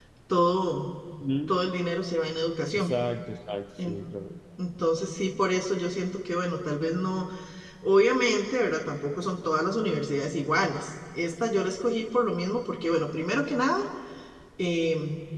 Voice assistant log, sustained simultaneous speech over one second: none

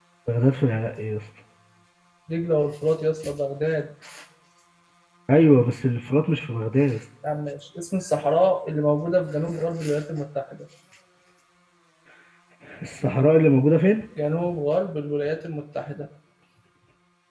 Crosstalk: none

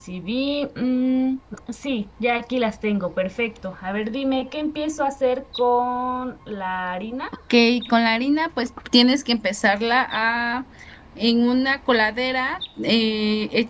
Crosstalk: none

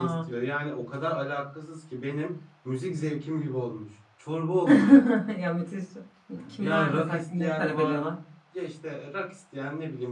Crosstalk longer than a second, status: present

